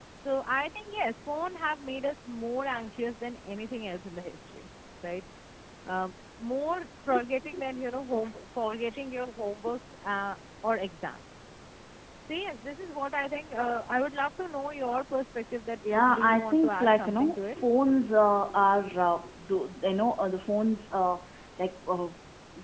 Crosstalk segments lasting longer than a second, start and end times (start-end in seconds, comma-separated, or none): 16.0-17.5